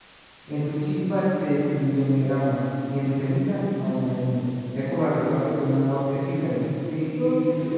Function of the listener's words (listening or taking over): taking over